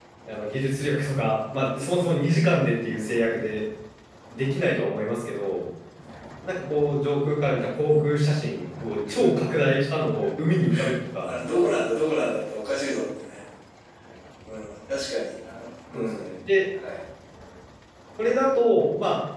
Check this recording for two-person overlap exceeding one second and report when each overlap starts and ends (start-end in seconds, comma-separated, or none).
none